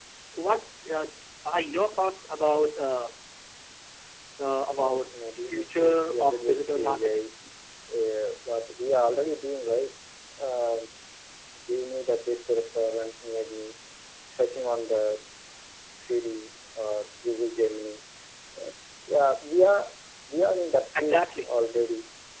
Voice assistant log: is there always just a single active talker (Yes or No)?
No